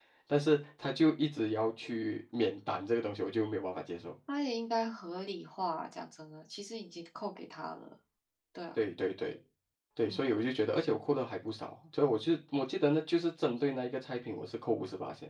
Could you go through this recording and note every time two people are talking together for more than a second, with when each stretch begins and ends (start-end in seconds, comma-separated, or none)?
none